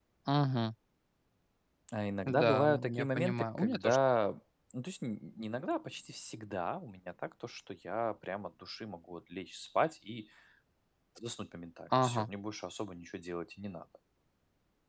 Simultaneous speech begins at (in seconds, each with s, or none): 2.3 s